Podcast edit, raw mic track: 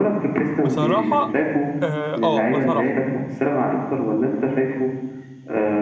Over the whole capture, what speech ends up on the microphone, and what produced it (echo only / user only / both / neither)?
both